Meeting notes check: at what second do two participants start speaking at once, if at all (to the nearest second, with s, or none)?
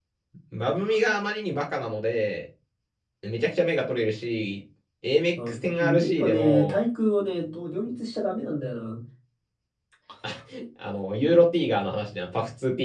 5 s